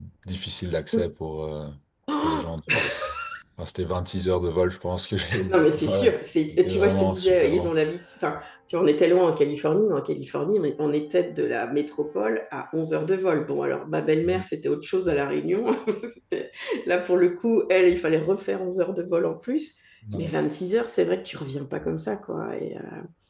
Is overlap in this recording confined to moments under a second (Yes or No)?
No